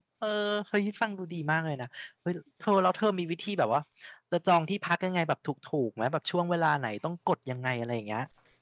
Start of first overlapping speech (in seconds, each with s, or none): none